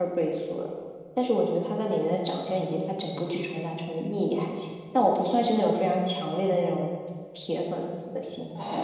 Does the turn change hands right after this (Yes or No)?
Yes